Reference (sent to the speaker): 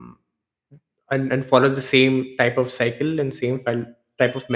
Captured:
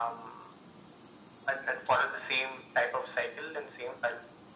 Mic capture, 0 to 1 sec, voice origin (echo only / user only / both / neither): echo only